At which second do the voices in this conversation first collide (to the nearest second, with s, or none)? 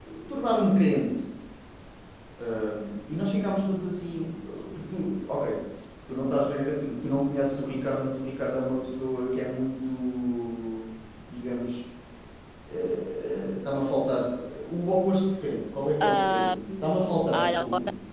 16 s